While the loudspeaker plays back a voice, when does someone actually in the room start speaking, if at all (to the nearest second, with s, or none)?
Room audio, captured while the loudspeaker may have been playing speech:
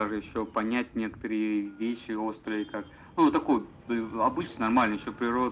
none